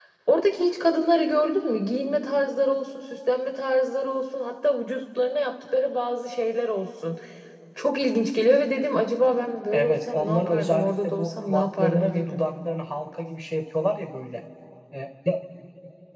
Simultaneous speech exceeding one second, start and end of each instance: 9.7-12.4

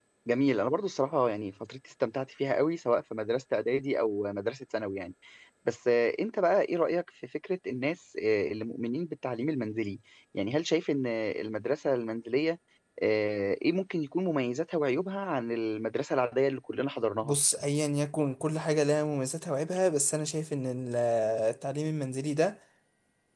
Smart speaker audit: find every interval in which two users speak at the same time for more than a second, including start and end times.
none

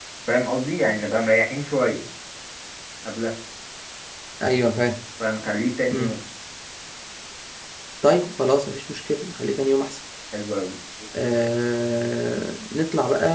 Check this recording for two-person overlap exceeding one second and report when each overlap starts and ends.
none

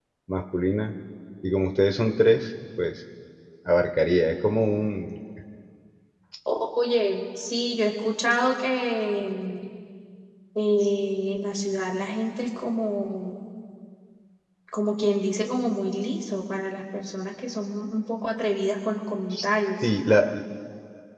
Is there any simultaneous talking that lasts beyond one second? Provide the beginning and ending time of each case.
none

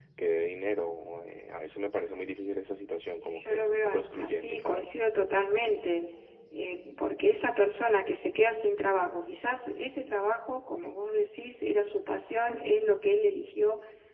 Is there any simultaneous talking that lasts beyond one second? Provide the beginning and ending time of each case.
3.2-4.9

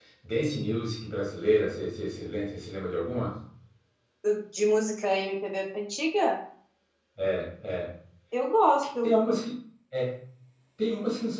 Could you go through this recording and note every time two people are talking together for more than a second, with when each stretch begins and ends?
none

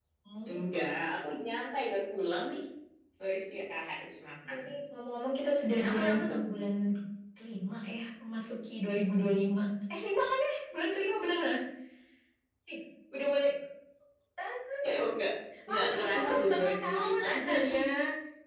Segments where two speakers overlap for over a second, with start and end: 15.7-17.8

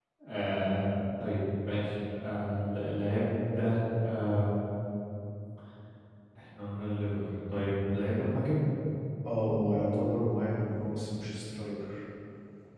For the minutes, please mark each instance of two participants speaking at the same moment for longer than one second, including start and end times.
none

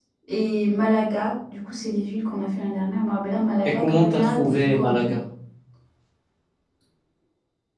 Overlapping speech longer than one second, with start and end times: 3.6-5.1

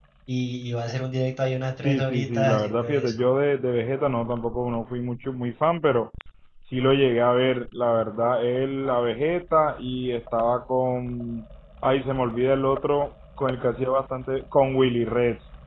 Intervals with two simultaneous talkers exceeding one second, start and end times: 1.8-3.2

